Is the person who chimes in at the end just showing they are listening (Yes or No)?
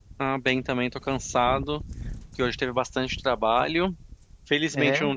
Yes